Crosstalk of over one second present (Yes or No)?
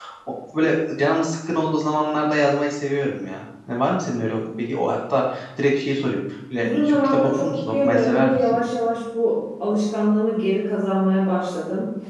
Yes